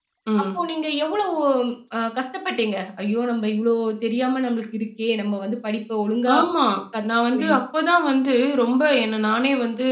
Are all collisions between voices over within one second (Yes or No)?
Yes